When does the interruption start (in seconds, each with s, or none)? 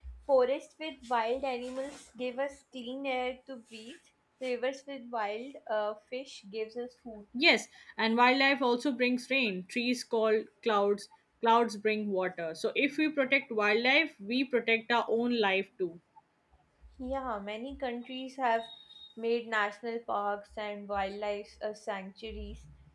none